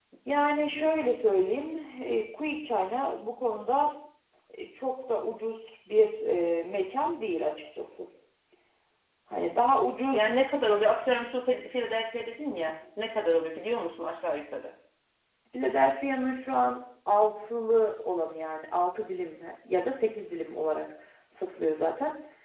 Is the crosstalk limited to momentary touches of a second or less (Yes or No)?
Yes